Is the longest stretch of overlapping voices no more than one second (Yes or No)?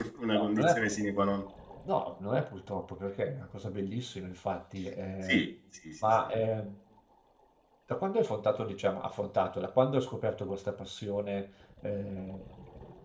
Yes